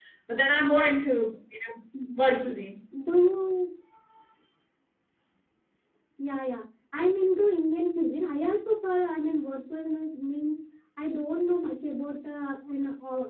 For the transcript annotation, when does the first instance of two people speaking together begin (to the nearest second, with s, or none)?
none